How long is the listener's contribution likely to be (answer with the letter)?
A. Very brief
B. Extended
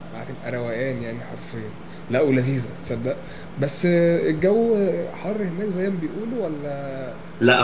B